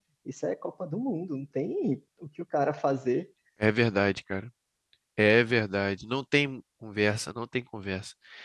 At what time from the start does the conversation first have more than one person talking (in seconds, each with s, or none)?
none